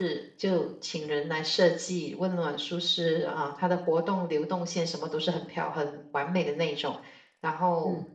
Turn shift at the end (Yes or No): No